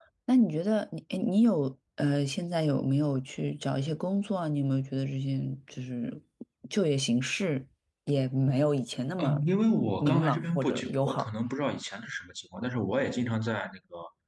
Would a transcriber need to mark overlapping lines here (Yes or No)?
Yes